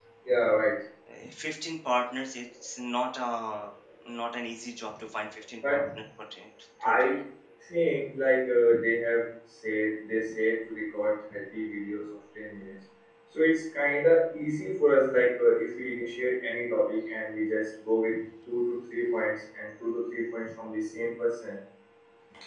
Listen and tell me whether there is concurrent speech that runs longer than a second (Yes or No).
No